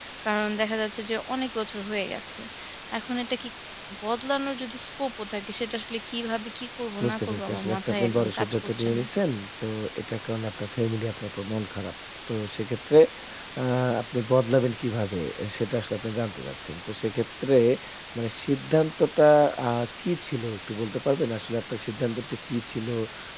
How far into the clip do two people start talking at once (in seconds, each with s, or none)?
7.0 s